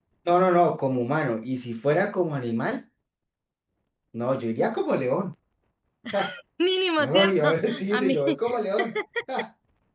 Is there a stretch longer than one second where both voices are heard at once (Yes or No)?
Yes